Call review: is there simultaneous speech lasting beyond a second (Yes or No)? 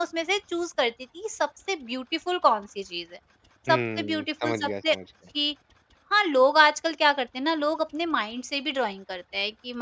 Yes